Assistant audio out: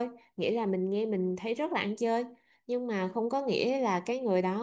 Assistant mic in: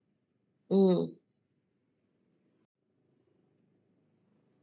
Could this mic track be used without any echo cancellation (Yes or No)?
Yes